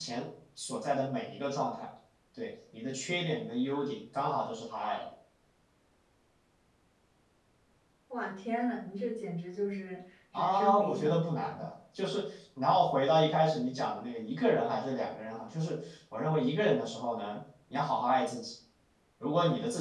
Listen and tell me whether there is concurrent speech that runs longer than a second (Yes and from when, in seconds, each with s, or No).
Yes, from 10.3 s